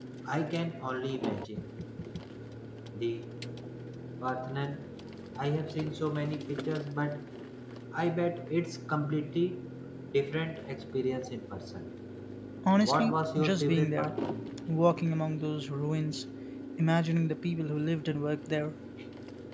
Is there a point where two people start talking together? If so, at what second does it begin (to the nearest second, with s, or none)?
13 s